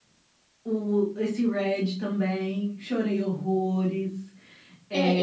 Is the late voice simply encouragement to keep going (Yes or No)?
No